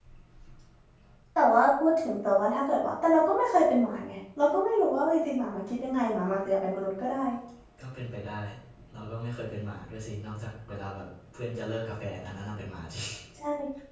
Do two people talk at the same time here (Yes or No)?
No